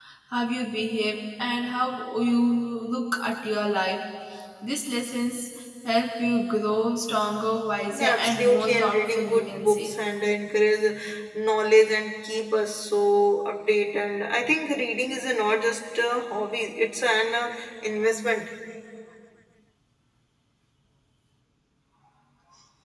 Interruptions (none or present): present